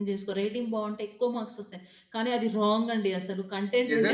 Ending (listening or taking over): taking over